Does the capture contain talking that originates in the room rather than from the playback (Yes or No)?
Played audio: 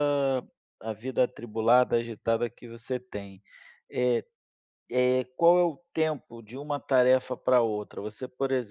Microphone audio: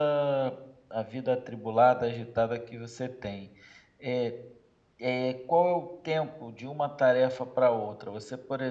No